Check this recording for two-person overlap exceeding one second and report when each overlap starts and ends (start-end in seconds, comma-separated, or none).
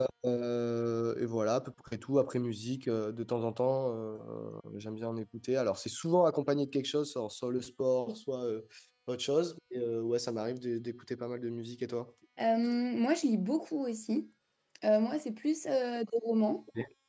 none